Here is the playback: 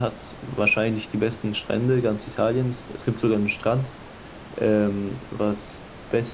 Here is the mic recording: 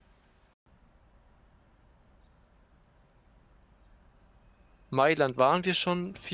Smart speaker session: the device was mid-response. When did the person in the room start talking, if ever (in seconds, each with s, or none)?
4.9 s